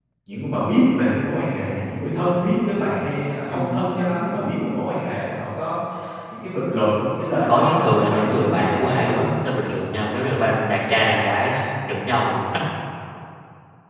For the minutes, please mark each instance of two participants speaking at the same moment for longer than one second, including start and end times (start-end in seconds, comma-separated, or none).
7.5-9.2